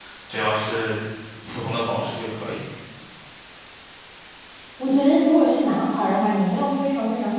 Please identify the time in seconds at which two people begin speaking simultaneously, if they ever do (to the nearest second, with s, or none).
none